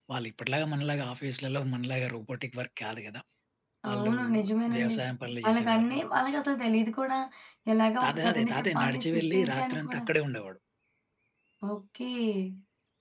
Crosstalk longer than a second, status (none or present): present